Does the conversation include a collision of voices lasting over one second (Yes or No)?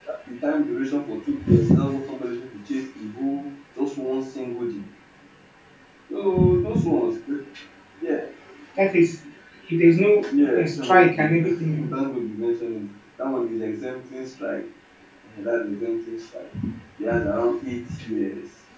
Yes